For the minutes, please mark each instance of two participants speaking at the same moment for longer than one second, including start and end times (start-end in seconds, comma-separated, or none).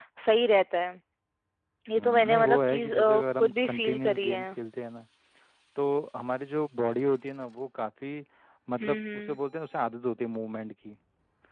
2.0-4.5